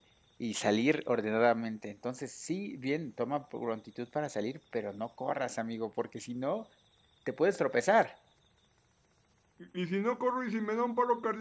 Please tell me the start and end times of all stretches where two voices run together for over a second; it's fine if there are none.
none

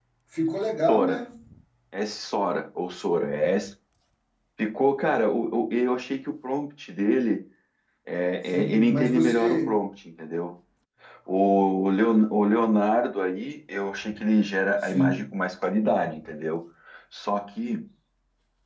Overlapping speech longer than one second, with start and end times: 8.5-9.8

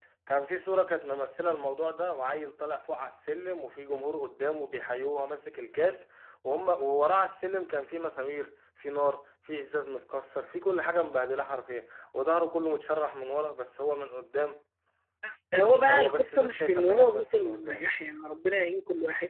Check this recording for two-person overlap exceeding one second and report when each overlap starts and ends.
15.9-17.8

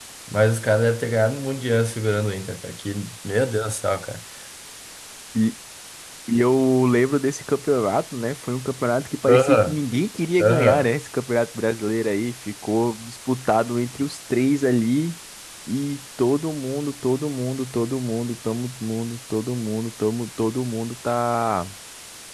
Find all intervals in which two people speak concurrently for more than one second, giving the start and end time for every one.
none

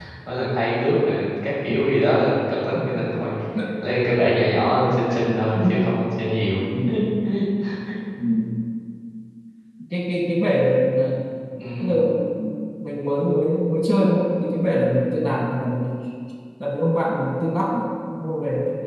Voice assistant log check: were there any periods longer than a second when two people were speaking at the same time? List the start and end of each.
none

